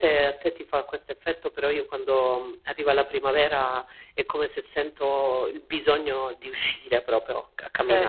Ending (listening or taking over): taking over